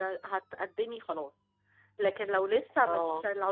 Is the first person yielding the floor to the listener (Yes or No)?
No